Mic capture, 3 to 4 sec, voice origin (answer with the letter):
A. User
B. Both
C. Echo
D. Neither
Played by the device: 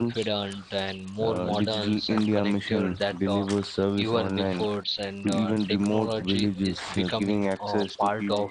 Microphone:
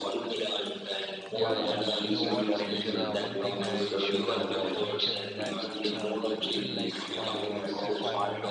B